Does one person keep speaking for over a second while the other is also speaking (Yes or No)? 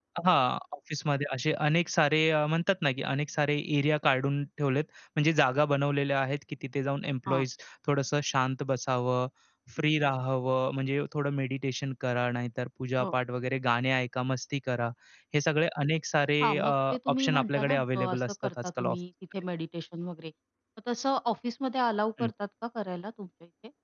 Yes